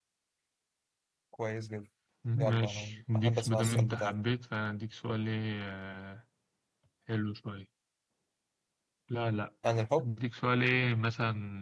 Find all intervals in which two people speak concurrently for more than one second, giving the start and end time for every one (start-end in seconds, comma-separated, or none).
2.4-4.1